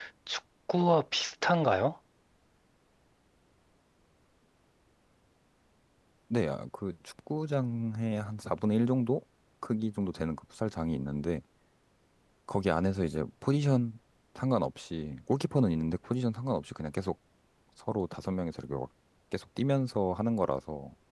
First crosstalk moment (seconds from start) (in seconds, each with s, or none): none